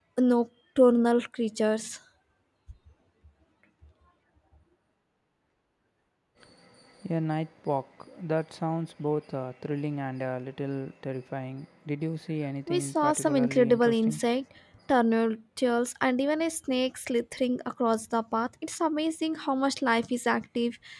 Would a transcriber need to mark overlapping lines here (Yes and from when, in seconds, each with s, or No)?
Yes, from 12.7 s